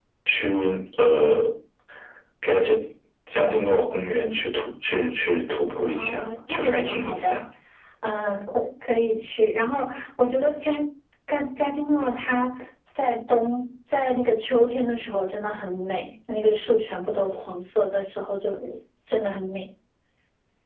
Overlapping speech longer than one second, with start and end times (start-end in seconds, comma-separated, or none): 5.9-7.4